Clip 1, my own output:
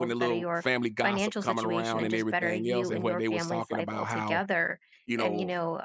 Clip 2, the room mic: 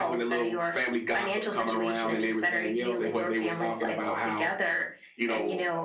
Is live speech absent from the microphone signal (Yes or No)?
Yes